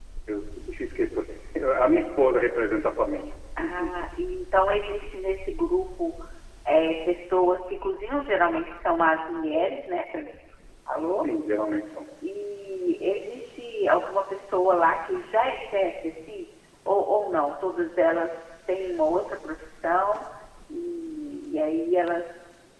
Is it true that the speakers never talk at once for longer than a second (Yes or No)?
Yes